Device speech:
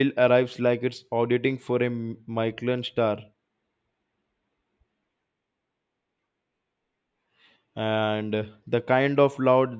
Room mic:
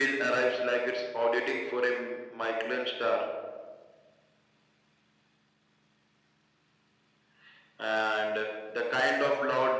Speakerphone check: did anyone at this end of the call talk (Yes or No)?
No